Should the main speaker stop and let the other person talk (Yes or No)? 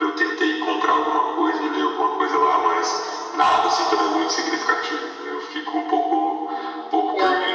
No